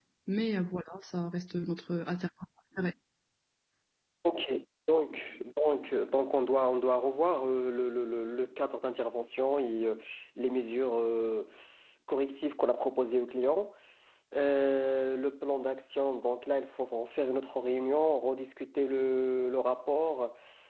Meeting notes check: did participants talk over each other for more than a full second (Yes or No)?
No